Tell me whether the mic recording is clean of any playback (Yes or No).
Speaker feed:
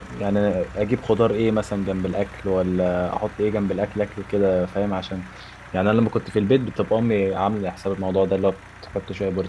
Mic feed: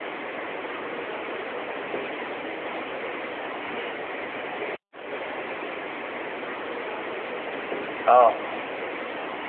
Yes